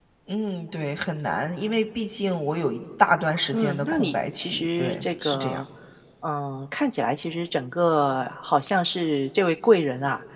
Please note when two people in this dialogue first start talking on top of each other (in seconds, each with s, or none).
3.5 s